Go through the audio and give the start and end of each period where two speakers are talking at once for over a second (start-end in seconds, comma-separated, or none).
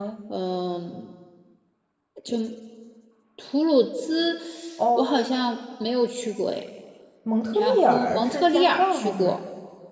7.5-9.4